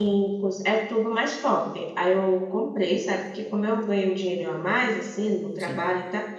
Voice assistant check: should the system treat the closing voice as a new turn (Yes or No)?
No